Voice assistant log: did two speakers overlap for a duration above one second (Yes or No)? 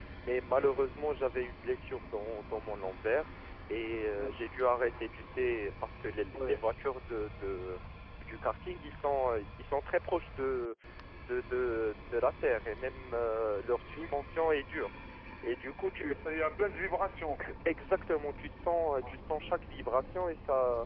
No